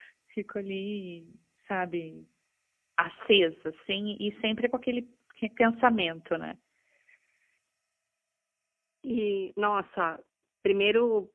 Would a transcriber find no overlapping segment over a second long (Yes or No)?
Yes